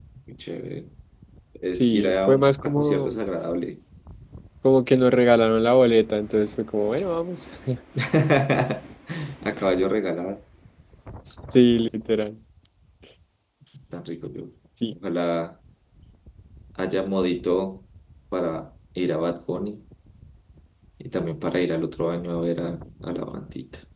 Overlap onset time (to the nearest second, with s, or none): 2 s